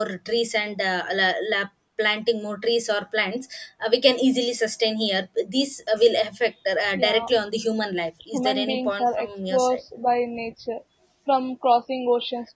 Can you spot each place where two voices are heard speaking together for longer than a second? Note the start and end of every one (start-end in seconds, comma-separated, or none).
8.3-9.8